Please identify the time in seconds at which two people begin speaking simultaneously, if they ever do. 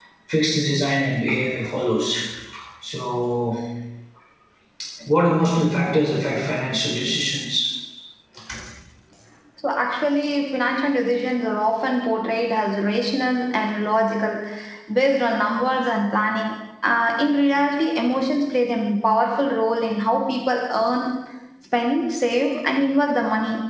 none

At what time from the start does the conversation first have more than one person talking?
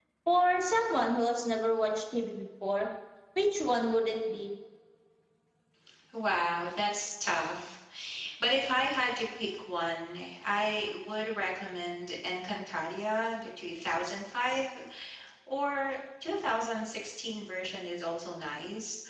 none

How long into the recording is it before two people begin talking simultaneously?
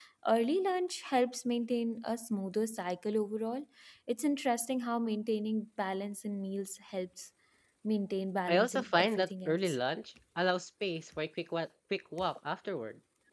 8.5 s

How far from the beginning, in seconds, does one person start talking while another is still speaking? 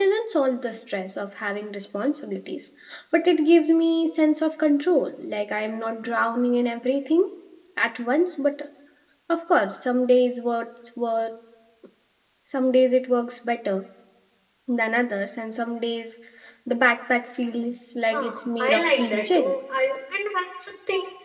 18.1 s

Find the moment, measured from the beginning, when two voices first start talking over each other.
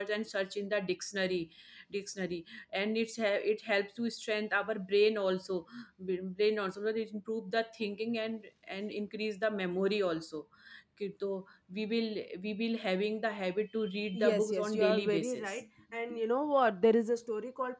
14.1 s

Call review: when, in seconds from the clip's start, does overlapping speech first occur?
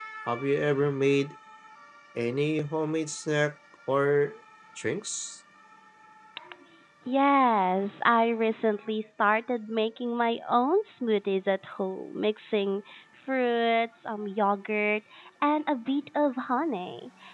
none

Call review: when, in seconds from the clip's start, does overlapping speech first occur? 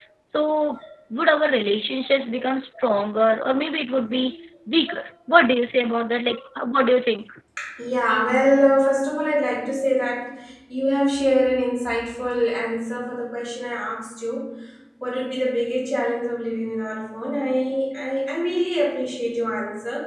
none

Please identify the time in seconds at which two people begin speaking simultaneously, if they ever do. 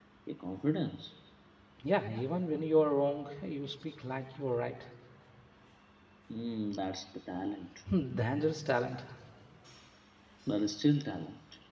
none

